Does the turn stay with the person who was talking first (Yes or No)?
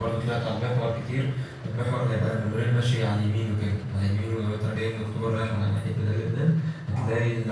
Yes